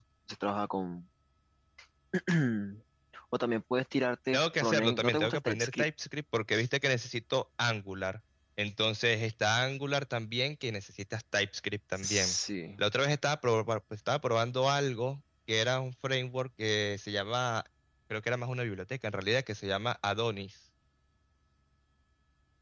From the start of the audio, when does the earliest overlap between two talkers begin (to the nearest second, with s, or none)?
4 s